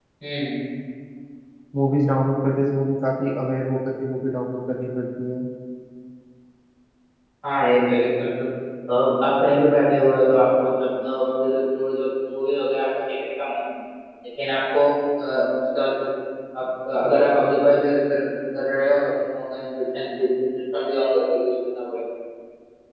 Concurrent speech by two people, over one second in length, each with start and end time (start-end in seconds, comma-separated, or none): none